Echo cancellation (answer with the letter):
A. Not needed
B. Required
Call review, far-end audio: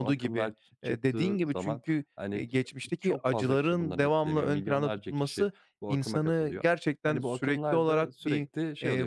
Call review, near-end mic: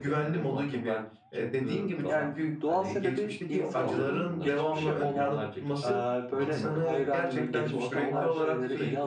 B